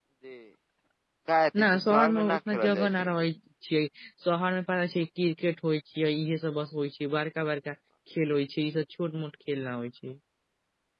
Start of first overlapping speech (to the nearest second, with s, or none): 2 s